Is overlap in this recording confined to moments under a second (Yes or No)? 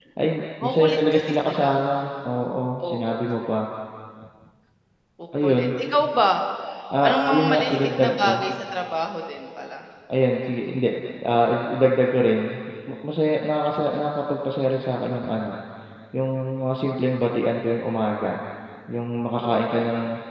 No